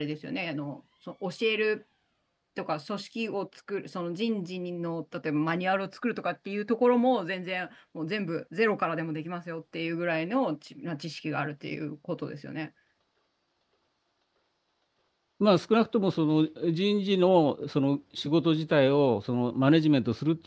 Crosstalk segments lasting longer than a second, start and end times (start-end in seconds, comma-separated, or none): none